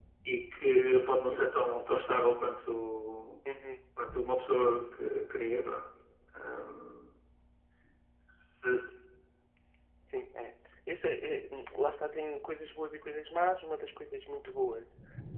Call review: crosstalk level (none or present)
none